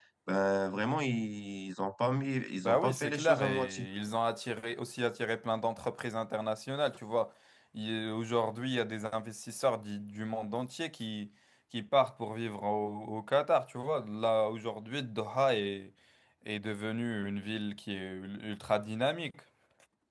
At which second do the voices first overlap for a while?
3 s

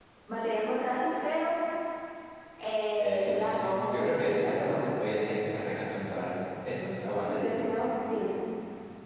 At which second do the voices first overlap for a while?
3 s

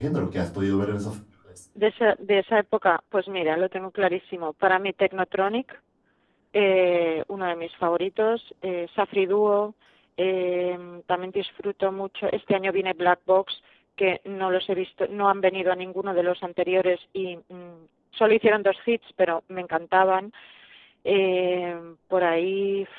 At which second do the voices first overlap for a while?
none

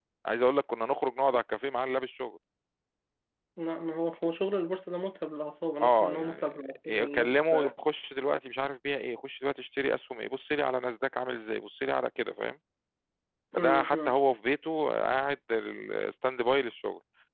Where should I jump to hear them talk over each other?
6 s

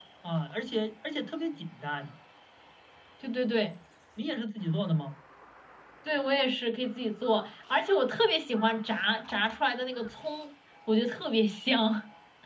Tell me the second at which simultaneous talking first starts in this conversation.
none

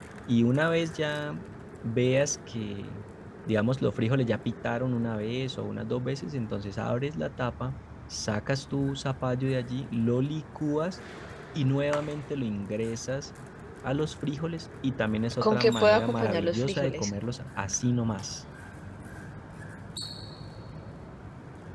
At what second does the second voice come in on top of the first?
15 s

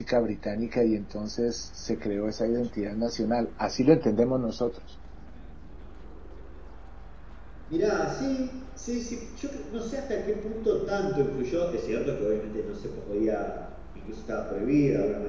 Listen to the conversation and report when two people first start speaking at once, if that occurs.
none

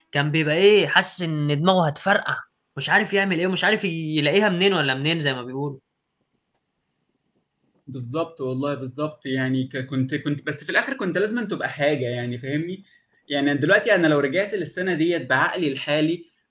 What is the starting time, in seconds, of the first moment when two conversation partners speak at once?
none

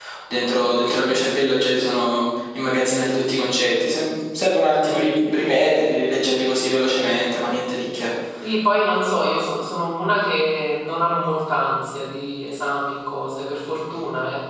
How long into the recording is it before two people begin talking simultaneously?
none

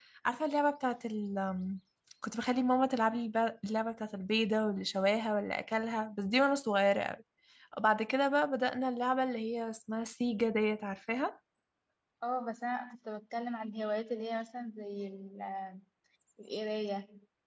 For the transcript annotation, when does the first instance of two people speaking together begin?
none

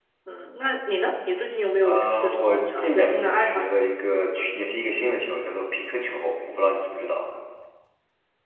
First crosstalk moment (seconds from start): 2 s

